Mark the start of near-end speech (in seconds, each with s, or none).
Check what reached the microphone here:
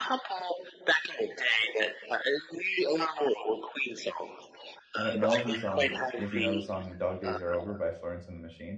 5.0 s